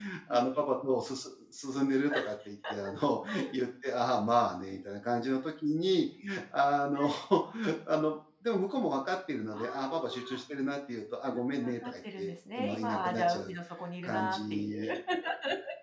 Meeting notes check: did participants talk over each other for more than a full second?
Yes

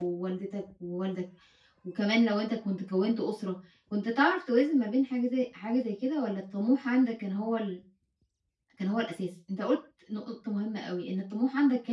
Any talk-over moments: No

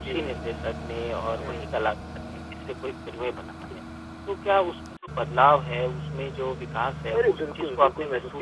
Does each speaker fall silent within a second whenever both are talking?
No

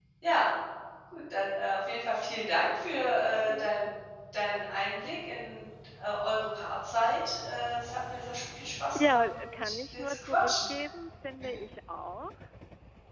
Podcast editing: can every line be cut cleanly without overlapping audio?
No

